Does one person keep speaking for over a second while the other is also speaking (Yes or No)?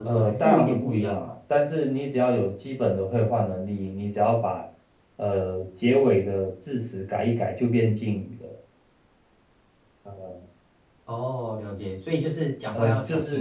Yes